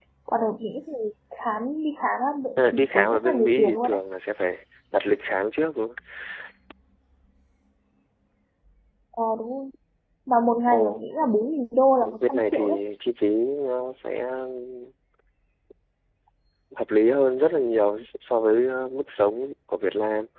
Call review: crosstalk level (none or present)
present